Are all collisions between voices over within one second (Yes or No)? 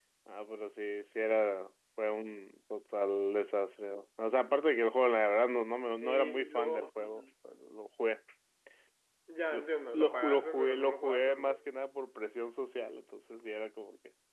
No